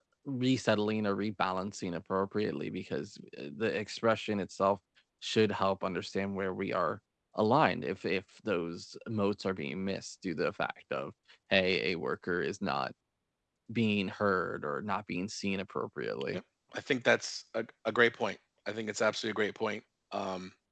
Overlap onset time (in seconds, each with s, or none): none